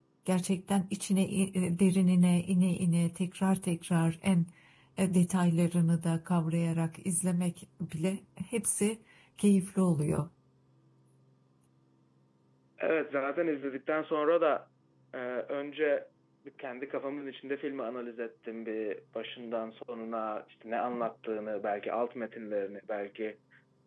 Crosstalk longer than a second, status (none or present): none